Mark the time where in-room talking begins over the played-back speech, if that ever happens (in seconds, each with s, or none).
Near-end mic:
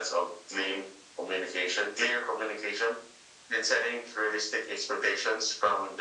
none